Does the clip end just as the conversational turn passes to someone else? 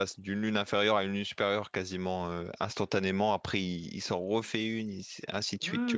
Yes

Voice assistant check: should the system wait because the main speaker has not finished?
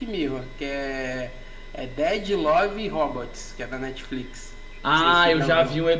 No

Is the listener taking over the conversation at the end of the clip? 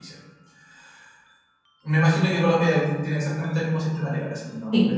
Yes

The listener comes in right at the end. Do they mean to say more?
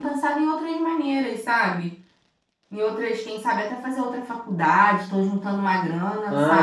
Yes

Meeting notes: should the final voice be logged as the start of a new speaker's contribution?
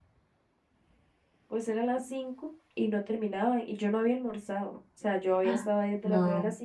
No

